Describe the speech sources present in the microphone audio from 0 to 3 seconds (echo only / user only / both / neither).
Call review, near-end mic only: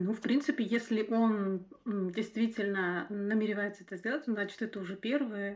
echo only